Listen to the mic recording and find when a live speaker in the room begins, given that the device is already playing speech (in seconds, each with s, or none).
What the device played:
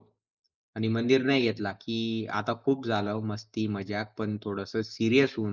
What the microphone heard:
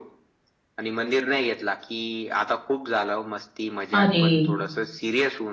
3.9 s